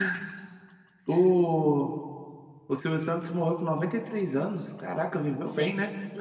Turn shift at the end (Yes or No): Yes